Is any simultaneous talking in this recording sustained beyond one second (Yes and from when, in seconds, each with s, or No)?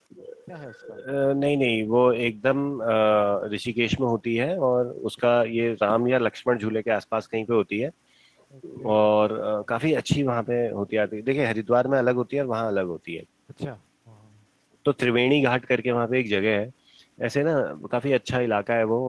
No